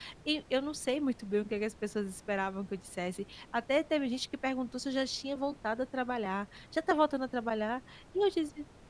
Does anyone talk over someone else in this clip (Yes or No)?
No